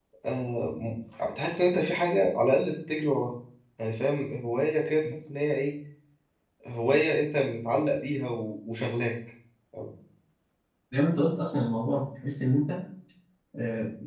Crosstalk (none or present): none